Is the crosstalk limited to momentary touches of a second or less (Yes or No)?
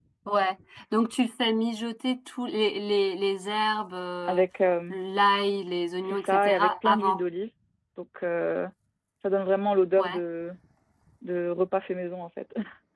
No